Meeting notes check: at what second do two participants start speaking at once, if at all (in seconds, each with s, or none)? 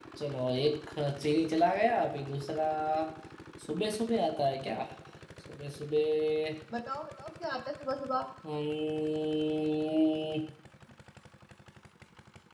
none